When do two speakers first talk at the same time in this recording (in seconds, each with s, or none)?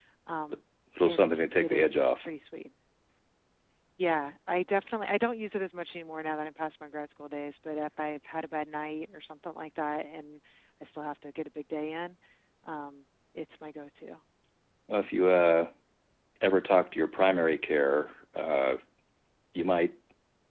1.0 s